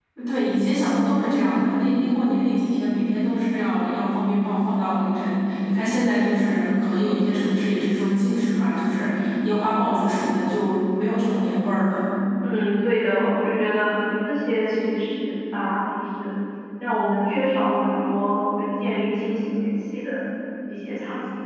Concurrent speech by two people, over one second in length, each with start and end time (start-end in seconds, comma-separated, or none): none